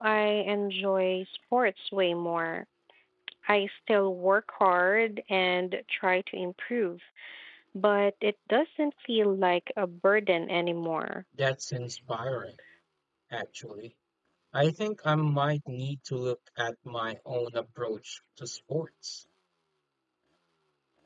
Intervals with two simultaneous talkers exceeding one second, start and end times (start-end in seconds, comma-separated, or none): none